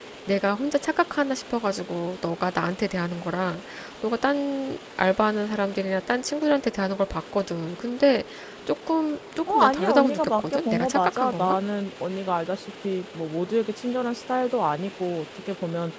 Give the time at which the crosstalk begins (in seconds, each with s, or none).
9.5 s